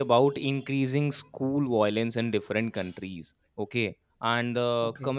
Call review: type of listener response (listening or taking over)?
listening